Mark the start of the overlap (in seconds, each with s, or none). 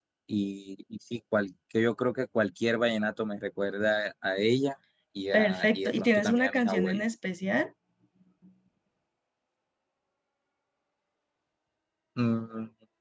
5.3 s